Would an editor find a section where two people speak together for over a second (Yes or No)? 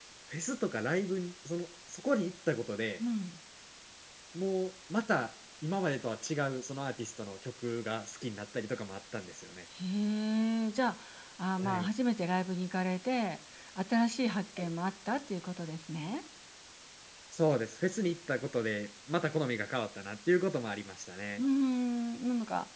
No